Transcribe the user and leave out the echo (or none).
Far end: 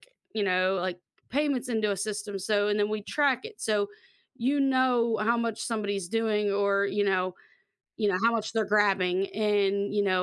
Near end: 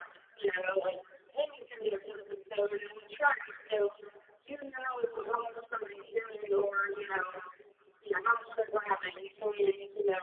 none